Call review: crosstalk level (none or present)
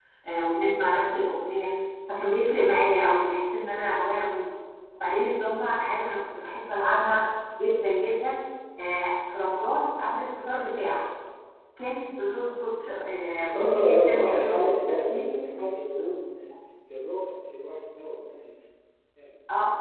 present